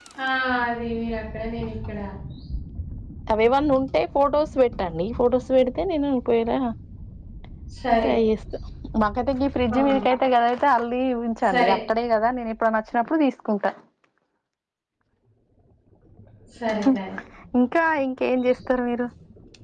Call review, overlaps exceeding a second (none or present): none